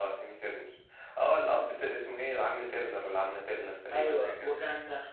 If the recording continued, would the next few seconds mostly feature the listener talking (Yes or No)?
Yes